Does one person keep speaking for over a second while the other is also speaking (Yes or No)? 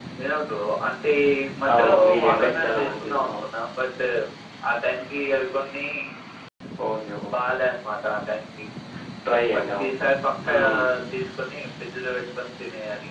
Yes